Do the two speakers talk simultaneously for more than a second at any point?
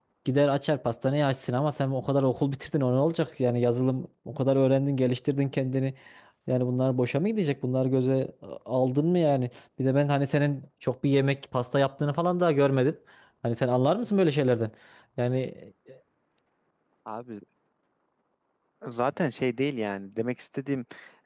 No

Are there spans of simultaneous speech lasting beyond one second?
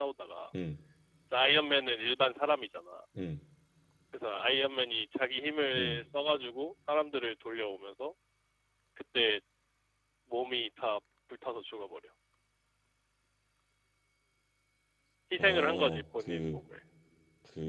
Yes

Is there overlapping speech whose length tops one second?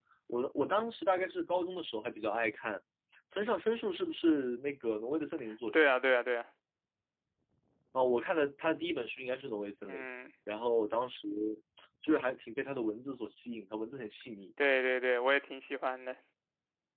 No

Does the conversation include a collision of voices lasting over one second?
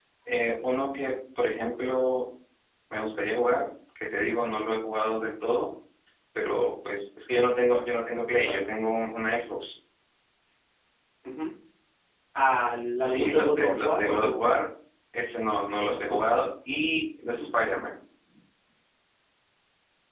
Yes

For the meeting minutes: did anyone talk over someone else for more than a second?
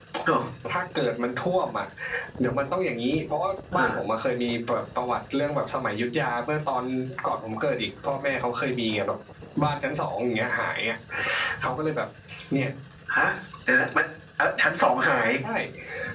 No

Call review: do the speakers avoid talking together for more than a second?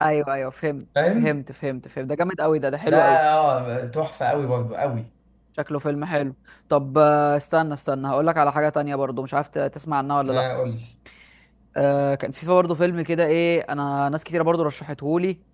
Yes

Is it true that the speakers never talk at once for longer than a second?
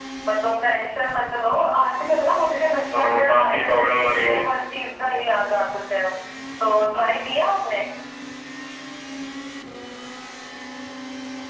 No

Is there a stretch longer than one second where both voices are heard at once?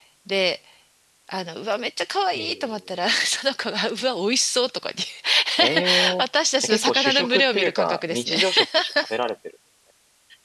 Yes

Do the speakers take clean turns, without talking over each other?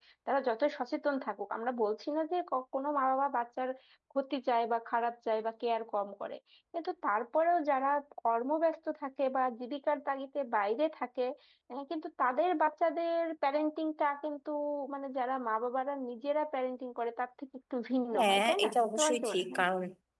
No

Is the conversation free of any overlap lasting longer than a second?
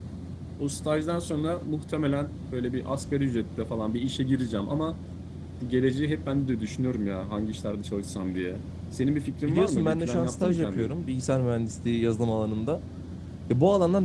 No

